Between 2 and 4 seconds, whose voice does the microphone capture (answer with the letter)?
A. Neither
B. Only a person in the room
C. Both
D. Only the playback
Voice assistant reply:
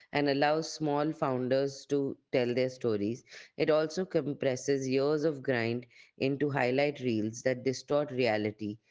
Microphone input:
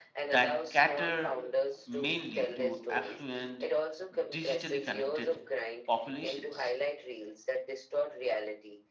C